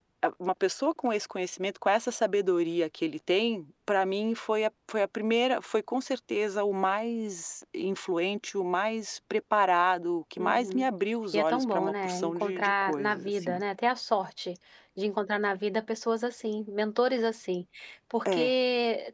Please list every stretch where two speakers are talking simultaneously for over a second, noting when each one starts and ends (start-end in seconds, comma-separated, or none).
11.3-13.6